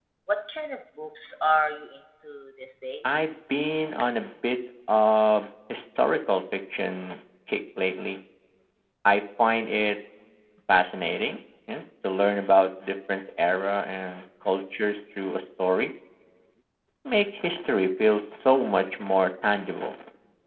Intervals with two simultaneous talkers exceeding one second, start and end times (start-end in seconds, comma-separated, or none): none